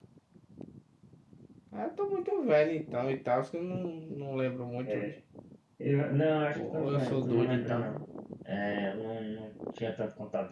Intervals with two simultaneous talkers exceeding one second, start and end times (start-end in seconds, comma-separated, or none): 6.5-7.9